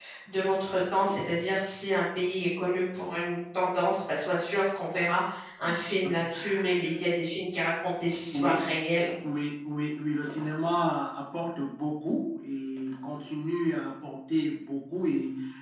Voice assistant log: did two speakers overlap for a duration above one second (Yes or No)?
No